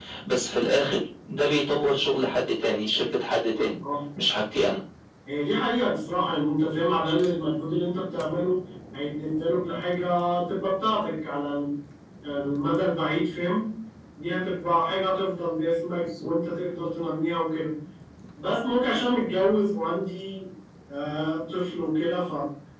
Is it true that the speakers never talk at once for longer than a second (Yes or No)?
Yes